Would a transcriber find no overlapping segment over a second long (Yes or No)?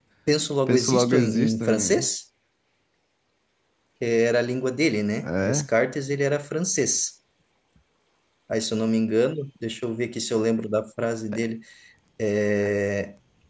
No